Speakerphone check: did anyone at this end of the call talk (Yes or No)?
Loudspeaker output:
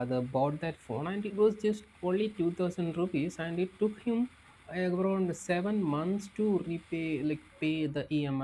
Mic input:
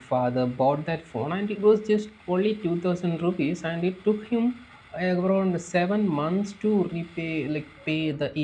No